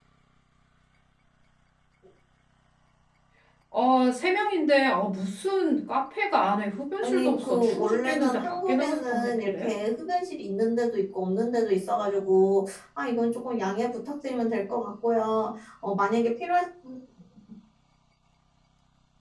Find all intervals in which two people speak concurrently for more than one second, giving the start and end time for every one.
7.0-9.7

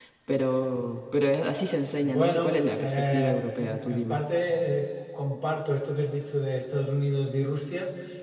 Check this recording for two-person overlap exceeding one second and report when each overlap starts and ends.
2.0-4.2

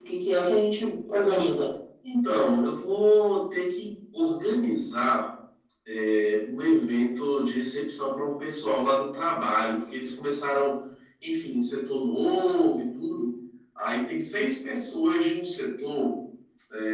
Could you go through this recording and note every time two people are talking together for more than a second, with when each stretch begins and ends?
none

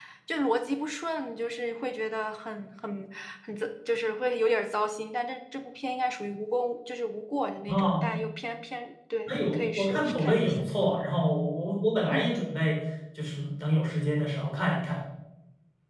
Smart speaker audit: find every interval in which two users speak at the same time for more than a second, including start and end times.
9.3-10.5

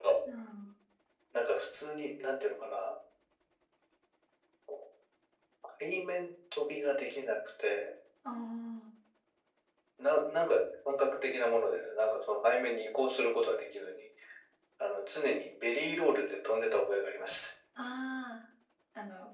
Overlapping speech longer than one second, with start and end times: none

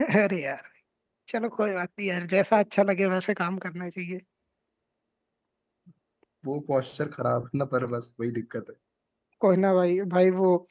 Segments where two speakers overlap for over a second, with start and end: none

